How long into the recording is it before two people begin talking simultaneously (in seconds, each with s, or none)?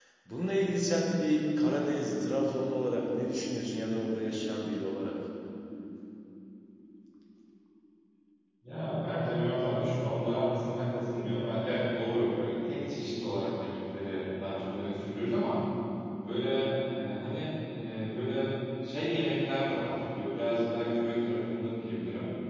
none